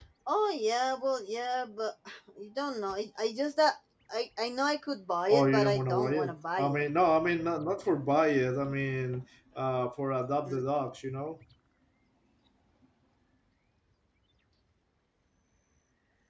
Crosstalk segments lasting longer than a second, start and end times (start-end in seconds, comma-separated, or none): 5.3-6.8